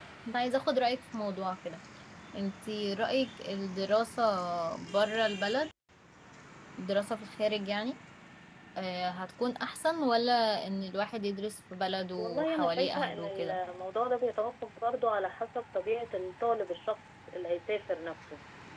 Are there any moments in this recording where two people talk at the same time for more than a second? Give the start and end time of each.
12.2-13.6

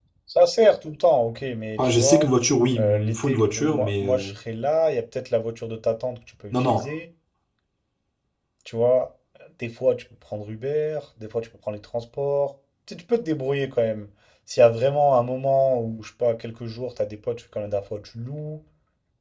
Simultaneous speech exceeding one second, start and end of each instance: 2.8-4.3

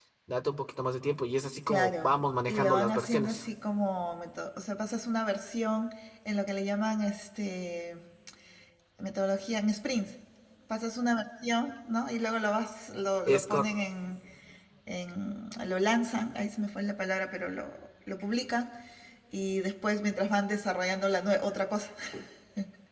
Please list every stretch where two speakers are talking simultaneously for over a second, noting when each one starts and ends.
1.7-3.4

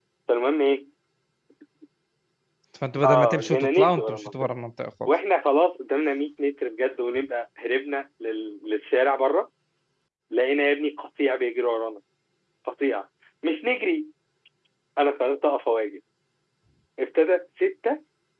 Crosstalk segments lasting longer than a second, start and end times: 3.0-4.3

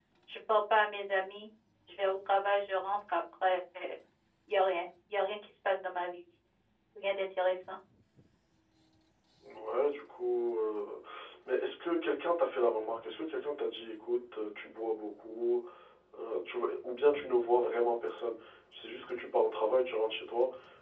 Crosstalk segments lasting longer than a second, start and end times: none

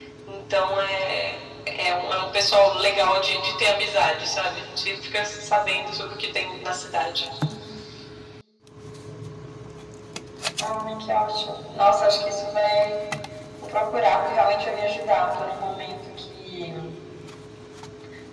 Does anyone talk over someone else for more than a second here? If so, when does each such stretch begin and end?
none

